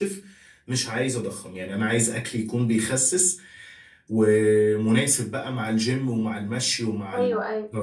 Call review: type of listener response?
taking over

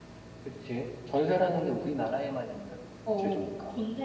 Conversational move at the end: taking over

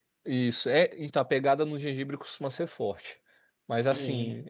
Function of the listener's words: listening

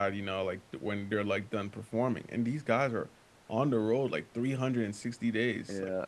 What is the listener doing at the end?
listening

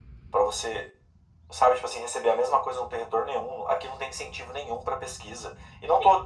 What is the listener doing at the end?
listening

